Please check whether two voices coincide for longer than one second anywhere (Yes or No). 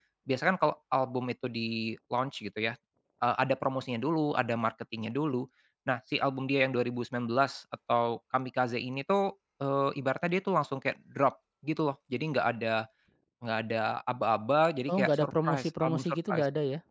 Yes